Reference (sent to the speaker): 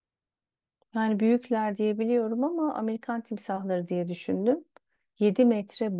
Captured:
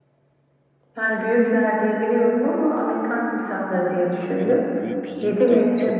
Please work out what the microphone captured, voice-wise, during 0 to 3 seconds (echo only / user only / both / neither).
echo only